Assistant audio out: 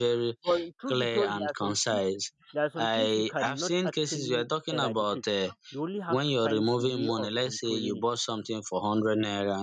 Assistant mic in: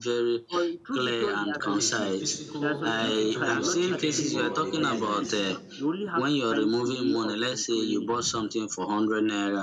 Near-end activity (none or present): present